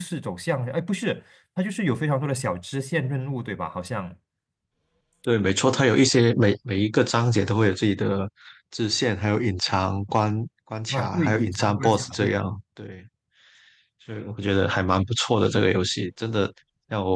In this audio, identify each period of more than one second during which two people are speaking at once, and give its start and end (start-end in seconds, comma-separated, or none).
10.9-12.5